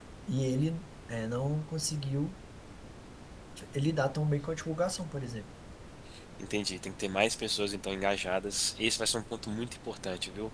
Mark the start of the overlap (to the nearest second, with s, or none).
none